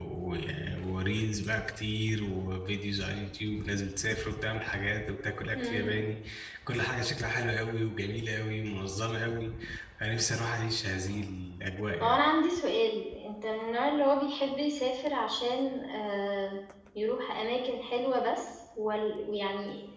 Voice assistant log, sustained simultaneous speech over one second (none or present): none